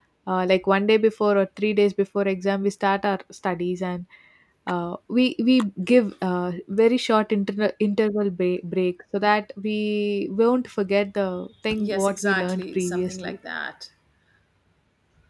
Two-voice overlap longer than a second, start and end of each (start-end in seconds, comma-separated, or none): 11.8-13.4